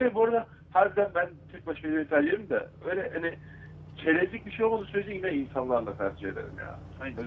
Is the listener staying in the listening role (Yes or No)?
No